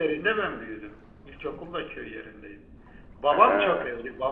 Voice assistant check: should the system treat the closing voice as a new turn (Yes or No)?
No